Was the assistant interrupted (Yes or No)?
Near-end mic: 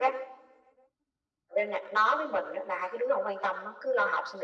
No